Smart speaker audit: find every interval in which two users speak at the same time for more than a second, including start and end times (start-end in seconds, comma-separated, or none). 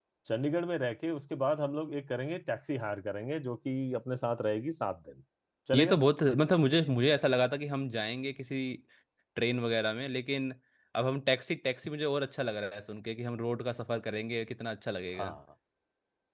none